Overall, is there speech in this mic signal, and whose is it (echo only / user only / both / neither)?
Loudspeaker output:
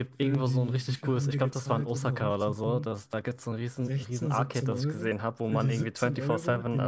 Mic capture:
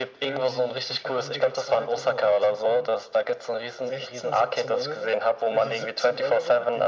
echo only